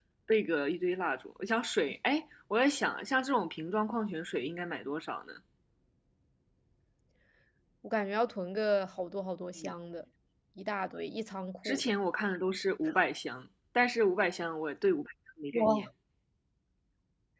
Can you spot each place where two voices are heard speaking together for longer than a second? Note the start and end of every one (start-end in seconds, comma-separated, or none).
none